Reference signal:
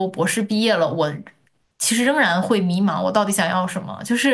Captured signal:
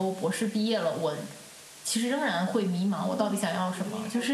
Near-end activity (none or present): present